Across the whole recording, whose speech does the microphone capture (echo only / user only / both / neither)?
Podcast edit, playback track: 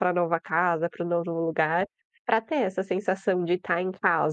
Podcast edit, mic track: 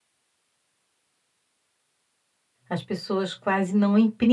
user only